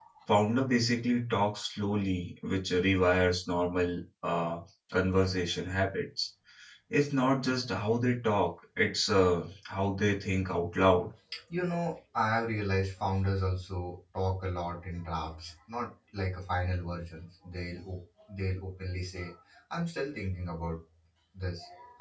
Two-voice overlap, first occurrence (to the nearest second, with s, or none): none